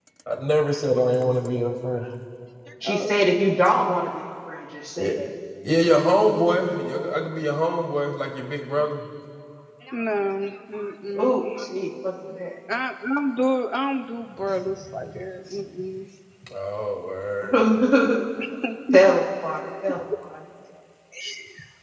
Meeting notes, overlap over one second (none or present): none